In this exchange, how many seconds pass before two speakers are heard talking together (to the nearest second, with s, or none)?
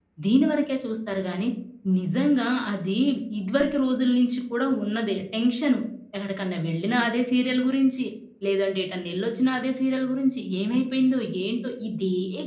none